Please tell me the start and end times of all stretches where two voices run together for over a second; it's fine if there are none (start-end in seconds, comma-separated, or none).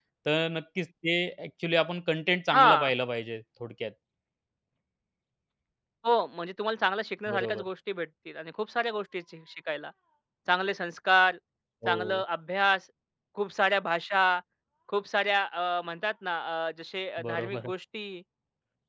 none